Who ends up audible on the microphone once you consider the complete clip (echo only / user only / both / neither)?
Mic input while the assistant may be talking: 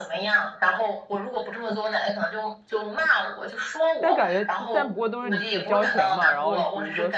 both